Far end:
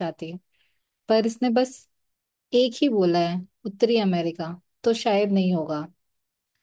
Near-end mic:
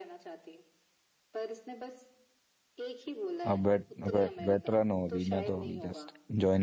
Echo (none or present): present